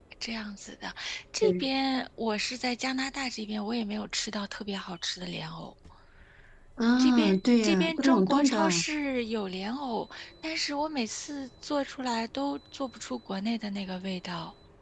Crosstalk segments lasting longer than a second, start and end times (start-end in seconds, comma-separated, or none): 7.0-8.8